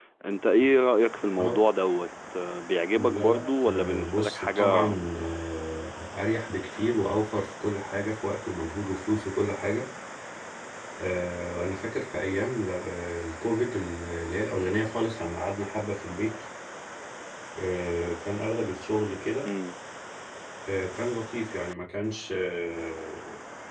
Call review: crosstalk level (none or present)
present